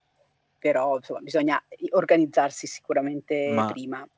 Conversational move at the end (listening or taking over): taking over